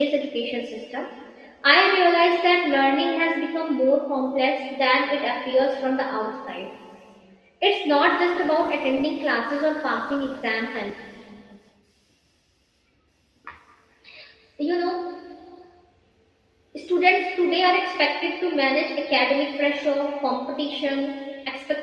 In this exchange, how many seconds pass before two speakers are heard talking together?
none

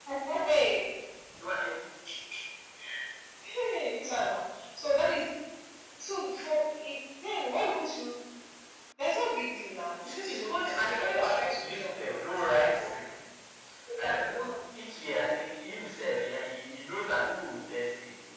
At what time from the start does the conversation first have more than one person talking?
10.0 s

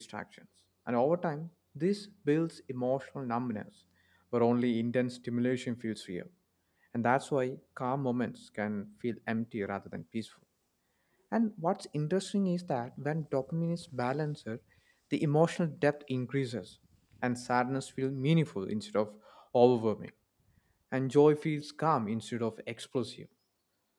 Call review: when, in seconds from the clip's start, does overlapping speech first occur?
none

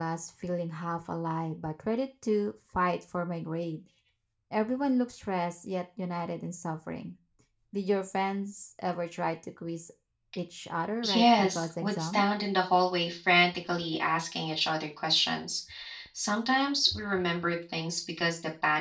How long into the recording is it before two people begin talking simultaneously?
11.0 s

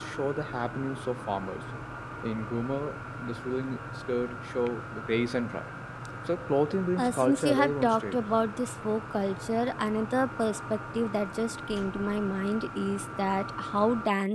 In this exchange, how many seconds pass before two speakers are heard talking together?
7.0 s

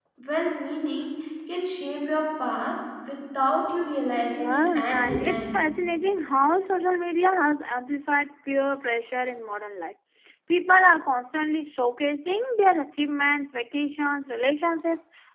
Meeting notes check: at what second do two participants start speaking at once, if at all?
4.4 s

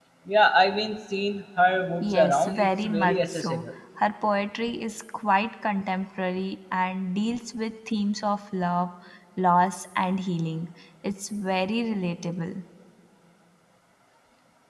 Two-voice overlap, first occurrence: 2.0 s

